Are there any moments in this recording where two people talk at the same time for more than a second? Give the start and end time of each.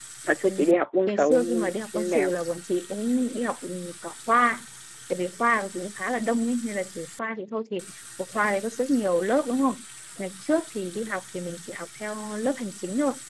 1.1-2.3

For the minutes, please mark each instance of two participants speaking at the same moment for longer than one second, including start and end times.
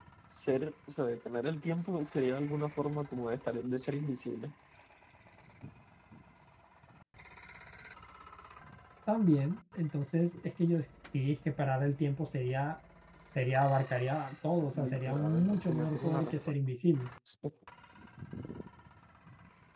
14.7-16.6

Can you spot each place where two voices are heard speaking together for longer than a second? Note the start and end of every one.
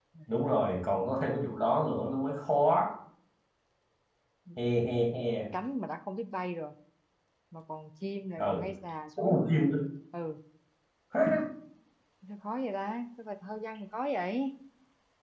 none

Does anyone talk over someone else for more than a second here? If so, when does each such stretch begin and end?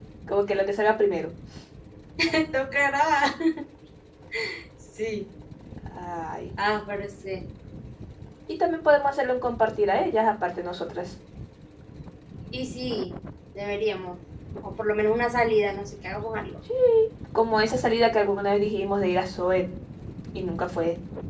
none

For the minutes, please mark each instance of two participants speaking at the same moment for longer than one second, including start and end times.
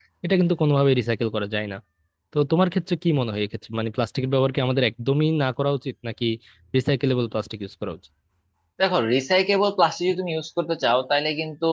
none

